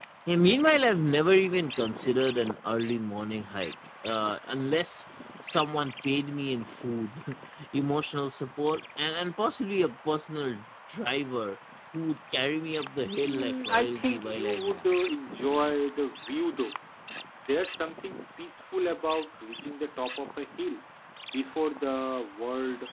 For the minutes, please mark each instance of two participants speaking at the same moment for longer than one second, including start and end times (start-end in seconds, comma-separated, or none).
13.2-14.8